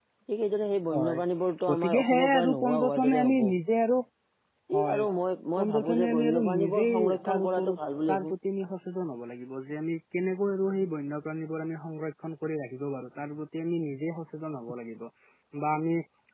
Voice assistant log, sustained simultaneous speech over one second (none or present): present